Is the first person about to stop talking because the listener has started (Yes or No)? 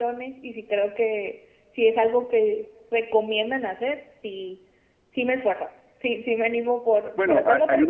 Yes